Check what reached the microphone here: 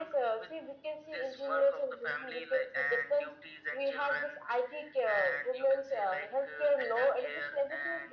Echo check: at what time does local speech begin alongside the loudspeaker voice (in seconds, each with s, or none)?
none